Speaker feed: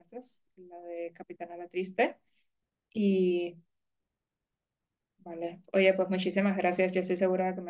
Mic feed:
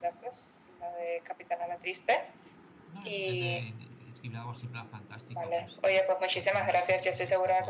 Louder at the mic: echo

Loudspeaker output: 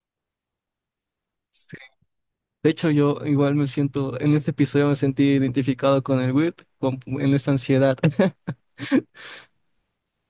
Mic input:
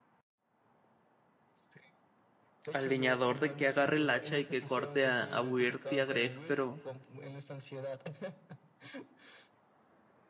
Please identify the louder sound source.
user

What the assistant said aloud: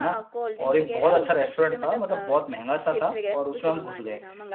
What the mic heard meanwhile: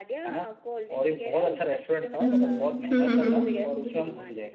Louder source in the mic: user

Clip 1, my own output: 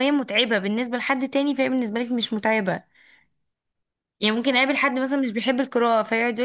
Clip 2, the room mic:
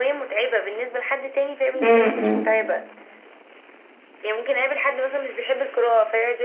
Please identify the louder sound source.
user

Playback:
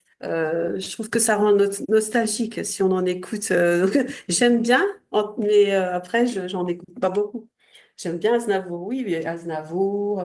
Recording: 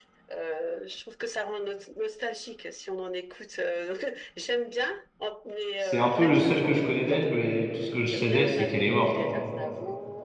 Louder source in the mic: user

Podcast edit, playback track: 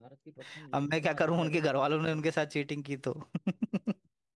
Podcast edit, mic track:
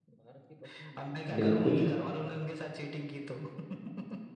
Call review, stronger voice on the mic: user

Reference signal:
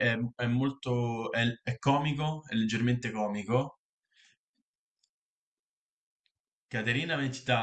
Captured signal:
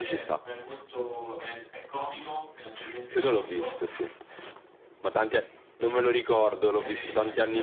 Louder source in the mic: user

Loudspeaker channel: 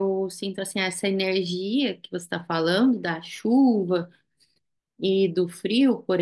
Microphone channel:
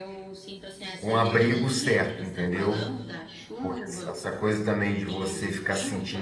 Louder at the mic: user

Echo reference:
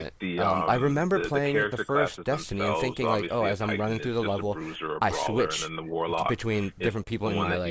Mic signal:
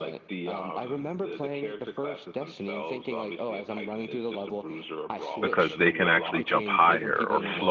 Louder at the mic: user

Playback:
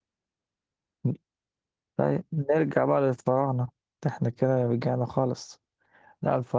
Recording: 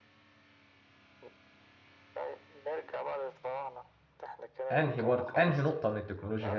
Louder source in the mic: user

